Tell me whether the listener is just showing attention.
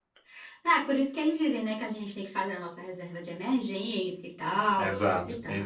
No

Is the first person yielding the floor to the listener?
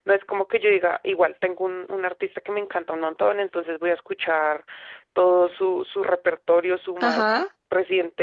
No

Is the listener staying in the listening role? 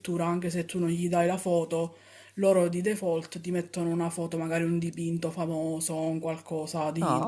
No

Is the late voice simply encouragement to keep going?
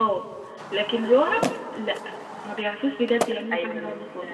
No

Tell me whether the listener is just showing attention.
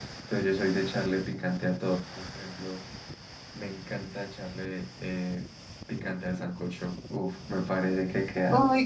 No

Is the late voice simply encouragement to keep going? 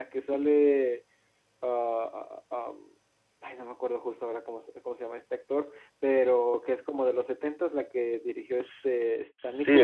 No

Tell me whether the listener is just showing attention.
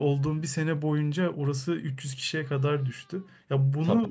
Yes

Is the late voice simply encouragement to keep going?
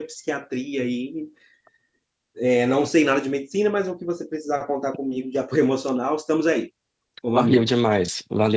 No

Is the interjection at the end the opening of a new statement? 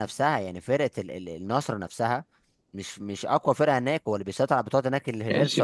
Yes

